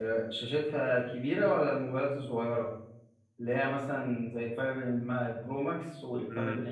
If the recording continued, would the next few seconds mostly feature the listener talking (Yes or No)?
Yes